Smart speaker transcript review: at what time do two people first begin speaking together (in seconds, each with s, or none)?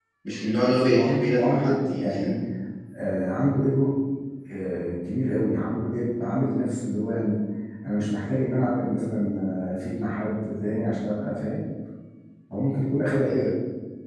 0.6 s